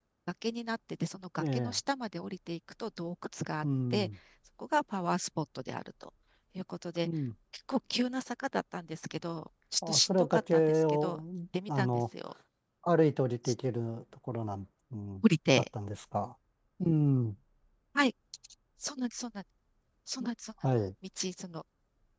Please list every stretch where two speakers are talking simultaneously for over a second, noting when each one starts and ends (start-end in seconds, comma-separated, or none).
9.9-11.2